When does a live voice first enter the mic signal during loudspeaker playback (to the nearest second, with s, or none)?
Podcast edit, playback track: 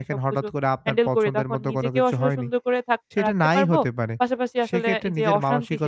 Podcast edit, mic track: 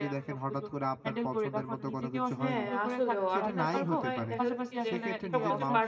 2 s